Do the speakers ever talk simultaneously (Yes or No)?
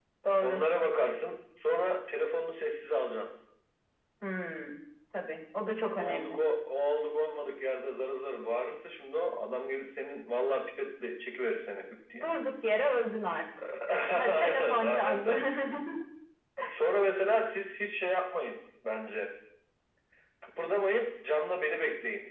Yes